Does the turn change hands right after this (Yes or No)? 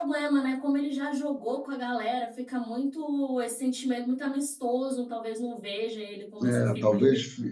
Yes